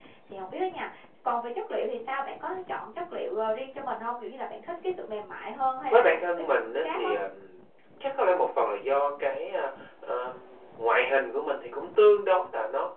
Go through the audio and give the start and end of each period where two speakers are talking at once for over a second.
5.9-7.1

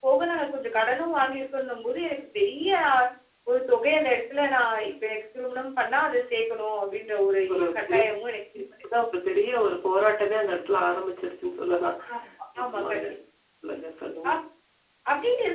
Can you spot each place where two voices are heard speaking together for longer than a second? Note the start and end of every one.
none

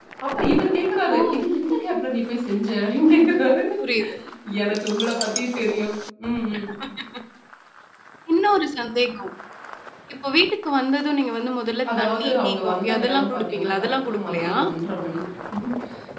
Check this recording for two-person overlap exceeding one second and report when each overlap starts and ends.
12.0-14.5

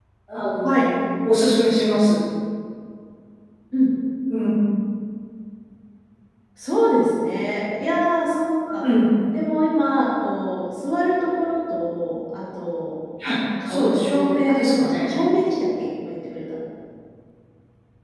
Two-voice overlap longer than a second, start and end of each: 13.7-15.1

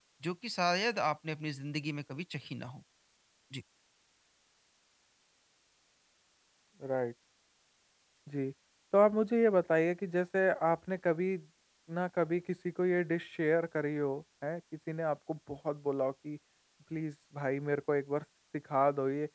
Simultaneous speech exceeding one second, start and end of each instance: none

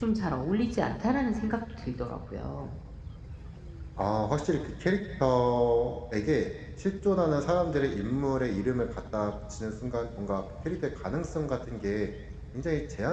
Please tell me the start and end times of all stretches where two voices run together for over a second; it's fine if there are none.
none

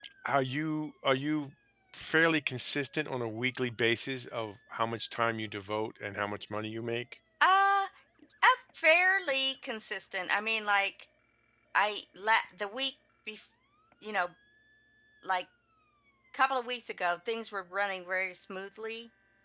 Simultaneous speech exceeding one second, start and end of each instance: none

